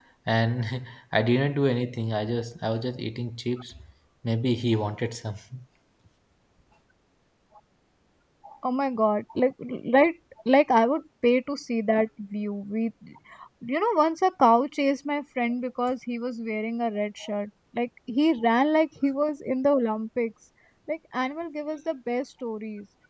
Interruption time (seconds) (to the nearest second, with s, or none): none